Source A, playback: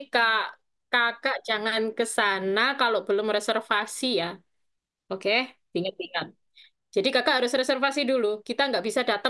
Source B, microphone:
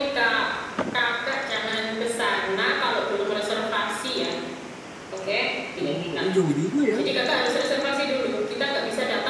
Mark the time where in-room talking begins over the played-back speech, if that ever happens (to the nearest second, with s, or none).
6 s